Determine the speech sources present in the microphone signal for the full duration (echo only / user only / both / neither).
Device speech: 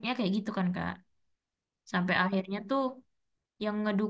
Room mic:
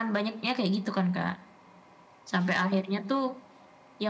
echo only